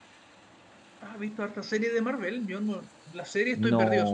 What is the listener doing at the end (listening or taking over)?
taking over